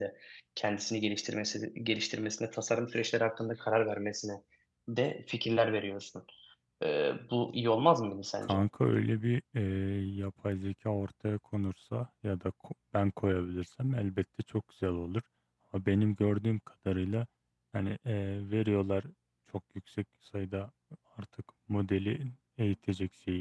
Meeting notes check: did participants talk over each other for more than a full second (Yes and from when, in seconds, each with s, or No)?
No